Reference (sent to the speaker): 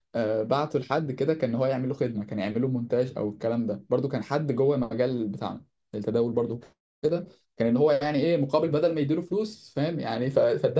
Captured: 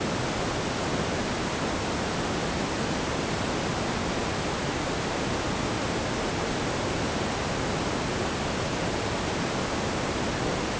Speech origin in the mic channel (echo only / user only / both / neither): neither